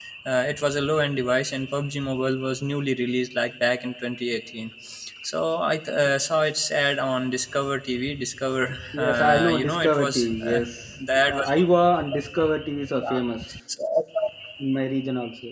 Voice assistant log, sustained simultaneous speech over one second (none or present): present